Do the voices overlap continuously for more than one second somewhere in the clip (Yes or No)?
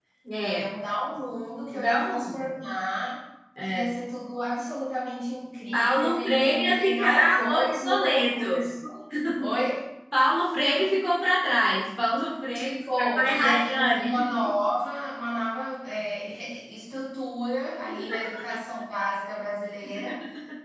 Yes